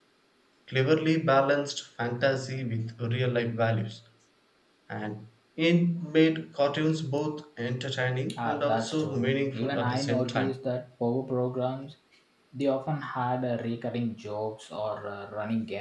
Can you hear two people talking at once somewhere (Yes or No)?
Yes